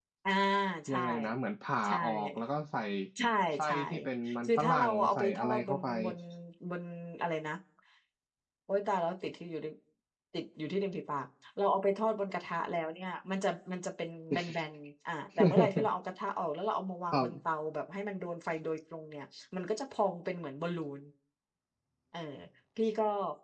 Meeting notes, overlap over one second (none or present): present